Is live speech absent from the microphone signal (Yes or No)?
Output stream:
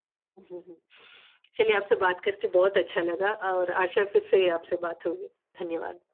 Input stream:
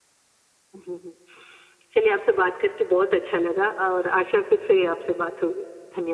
Yes